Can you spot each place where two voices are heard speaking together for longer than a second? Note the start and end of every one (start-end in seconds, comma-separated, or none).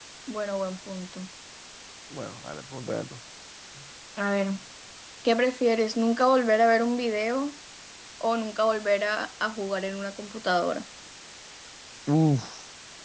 none